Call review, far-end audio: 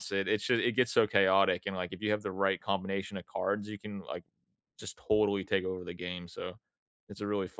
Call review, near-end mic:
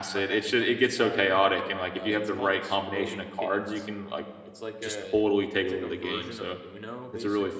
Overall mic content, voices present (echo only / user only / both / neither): both